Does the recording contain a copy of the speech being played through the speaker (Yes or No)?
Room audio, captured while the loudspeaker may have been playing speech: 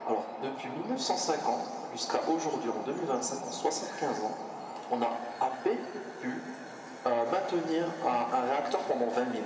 Yes